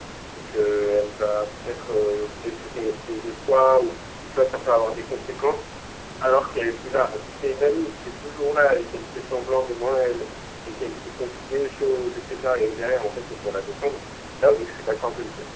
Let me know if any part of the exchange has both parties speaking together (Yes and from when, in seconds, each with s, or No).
No